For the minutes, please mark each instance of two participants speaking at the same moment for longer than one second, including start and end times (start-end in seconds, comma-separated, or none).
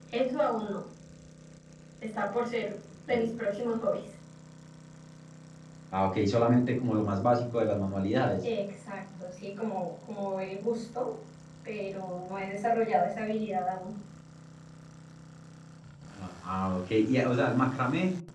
none